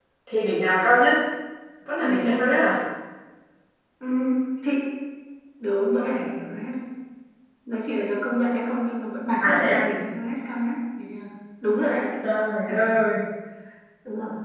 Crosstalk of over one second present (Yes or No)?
No